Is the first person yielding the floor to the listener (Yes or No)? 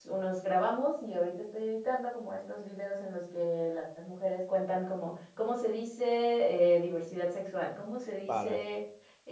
No